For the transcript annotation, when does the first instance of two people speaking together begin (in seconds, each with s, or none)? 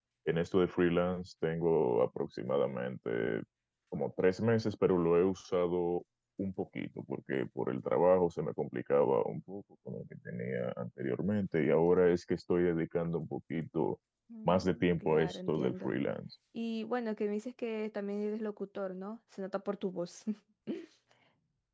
14.4 s